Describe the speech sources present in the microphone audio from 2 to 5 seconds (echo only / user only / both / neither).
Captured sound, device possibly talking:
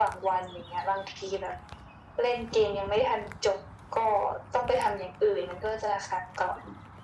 echo only